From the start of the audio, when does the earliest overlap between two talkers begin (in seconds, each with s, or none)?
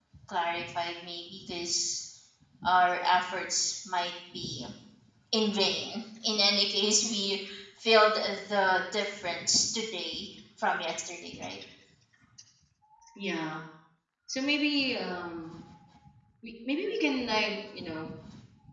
none